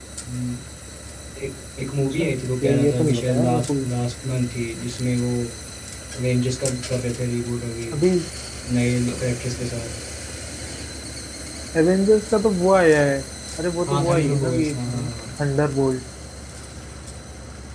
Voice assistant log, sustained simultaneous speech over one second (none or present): present